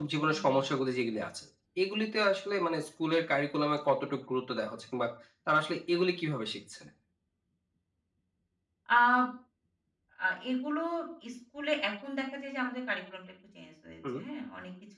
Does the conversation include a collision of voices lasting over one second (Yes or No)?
No